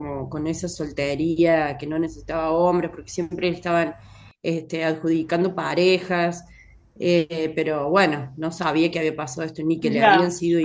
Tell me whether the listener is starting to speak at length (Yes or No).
Yes